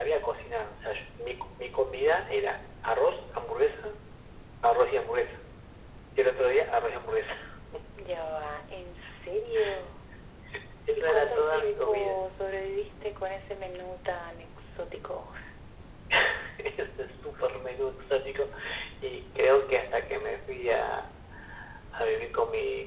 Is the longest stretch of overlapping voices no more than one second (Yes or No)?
No